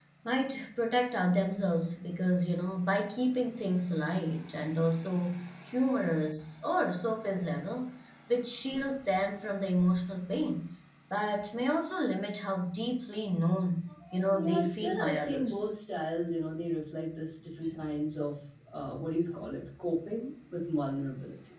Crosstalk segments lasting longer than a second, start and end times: 14.3-15.7

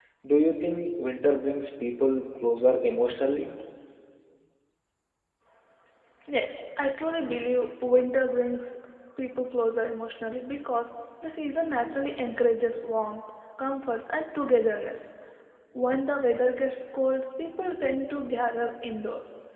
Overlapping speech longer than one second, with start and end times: none

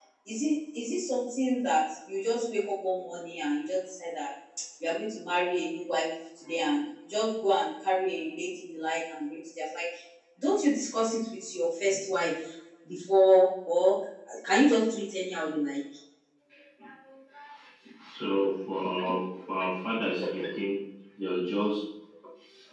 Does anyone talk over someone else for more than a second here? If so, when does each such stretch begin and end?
none

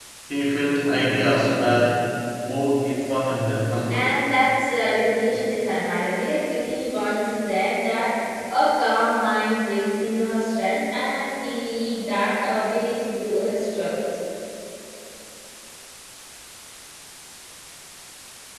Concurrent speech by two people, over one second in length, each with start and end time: none

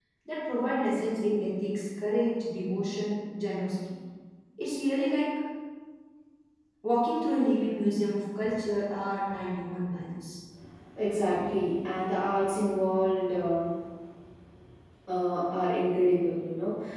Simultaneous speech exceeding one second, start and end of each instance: none

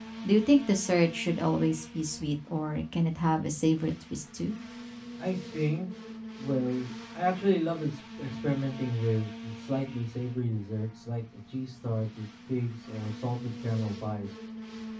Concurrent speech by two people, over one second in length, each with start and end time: none

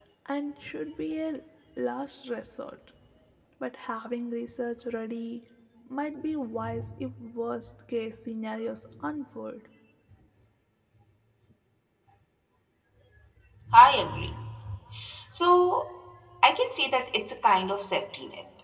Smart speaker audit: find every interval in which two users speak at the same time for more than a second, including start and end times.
none

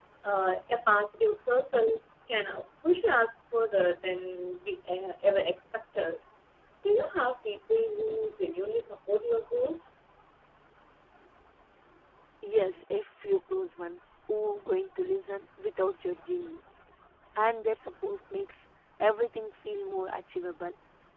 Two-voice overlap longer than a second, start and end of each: none

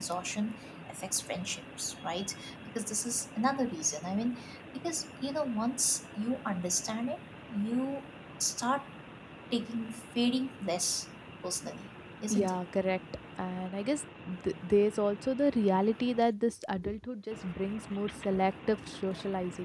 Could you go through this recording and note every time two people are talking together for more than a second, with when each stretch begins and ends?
none

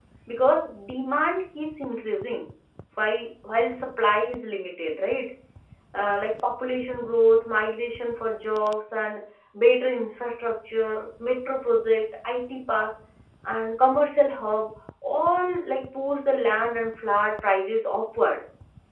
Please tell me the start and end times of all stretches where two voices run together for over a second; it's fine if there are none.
none

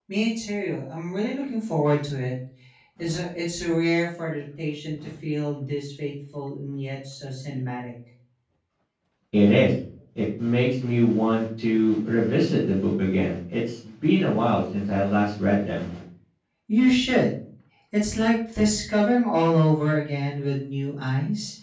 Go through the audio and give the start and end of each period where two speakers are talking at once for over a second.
none

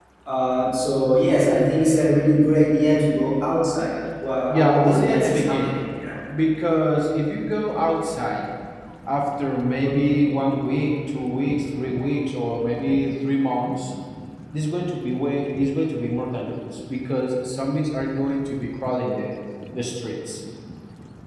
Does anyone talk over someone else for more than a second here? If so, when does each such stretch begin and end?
4.5-5.8

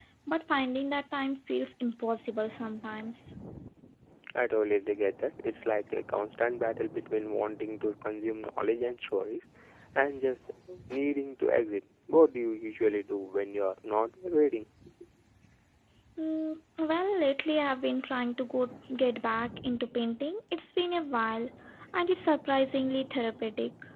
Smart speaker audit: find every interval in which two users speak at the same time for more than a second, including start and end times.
none

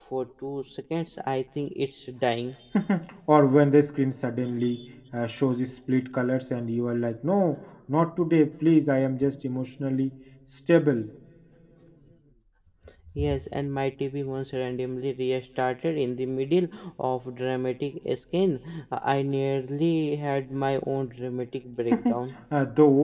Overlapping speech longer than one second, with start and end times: none

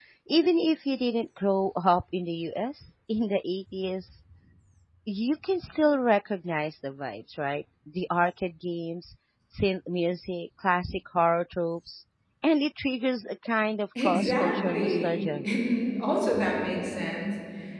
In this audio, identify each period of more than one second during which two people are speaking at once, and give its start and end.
14.0-15.4

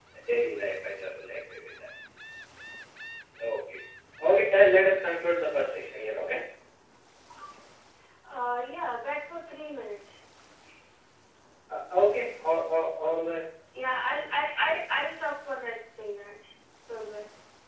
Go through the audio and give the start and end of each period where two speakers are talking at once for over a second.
none

